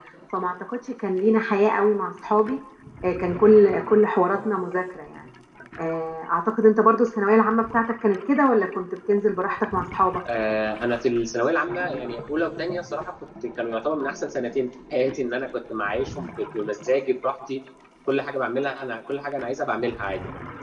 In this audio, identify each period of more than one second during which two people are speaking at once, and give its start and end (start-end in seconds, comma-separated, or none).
none